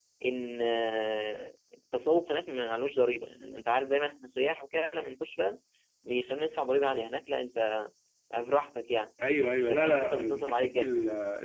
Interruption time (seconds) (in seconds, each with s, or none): 9.2 s